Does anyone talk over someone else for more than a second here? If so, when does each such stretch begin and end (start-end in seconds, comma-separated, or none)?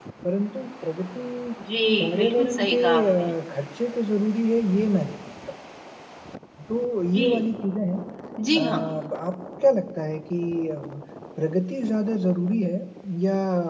2.0-3.3